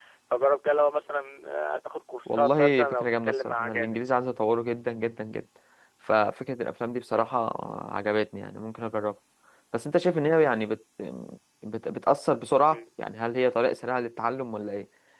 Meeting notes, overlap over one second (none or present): present